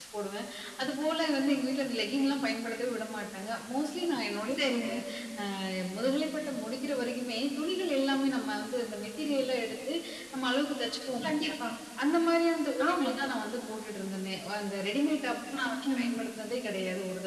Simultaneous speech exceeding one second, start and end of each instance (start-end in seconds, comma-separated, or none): none